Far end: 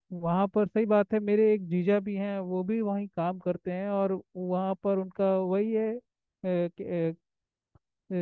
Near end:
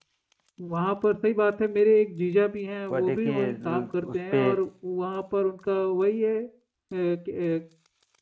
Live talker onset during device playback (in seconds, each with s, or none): 2.9 s